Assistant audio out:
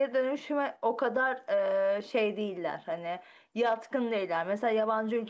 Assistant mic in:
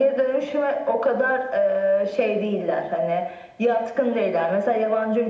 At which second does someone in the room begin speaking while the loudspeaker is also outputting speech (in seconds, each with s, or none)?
none